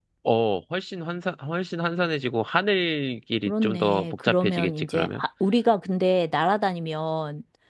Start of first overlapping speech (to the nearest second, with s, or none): 3 s